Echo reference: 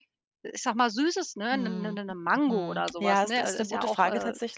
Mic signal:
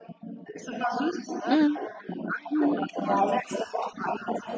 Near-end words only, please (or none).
Mhm. Mhm.